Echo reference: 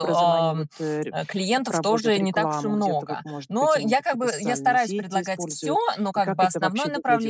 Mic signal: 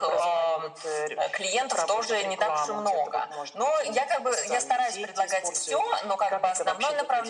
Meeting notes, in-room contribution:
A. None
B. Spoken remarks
A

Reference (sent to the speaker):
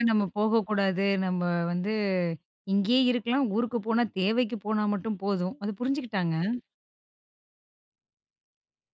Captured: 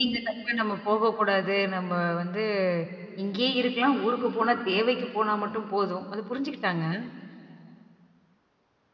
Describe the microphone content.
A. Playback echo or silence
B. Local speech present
A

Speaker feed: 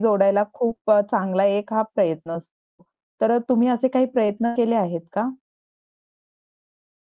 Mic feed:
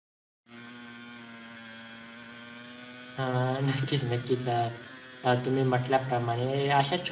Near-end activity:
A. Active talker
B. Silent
A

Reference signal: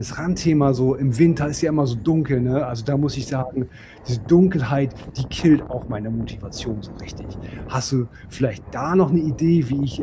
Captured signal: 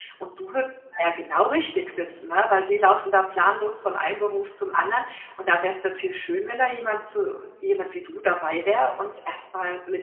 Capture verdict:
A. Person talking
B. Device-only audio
A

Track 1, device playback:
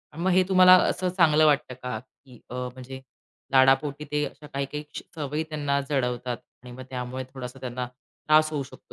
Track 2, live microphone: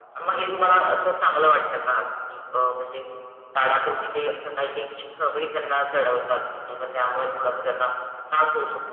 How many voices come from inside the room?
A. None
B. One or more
A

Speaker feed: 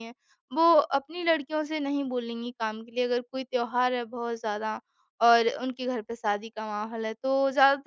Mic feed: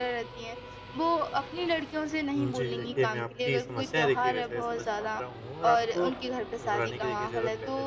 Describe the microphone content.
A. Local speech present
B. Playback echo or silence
A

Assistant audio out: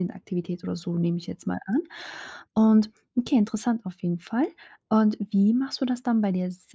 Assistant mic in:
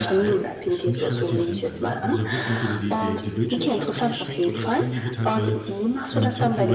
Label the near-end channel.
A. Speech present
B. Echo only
A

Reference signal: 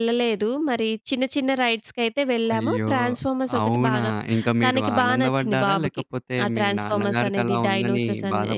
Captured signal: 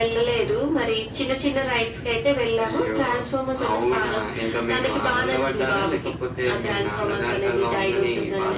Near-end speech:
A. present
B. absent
B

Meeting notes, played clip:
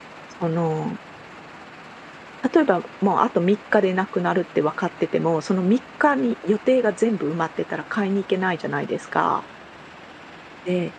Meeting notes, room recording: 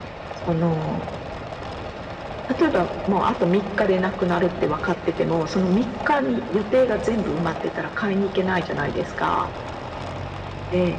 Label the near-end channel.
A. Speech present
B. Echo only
B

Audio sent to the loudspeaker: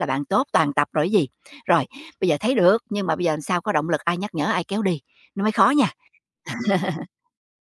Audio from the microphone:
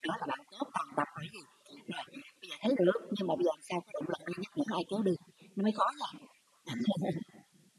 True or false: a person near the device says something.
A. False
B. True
A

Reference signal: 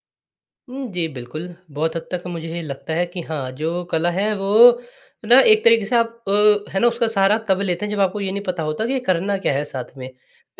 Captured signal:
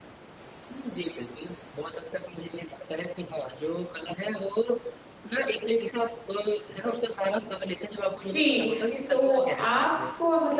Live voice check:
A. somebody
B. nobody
A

